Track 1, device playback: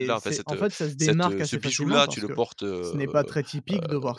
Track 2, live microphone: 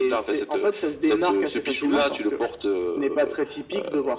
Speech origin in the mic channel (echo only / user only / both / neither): echo only